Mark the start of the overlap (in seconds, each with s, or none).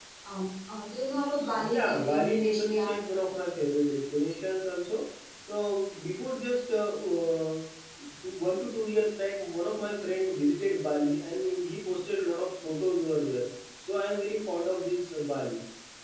1.5 s